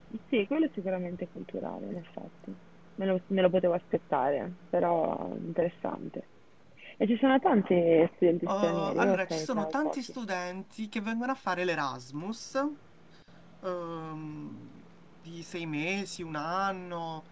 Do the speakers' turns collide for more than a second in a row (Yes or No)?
Yes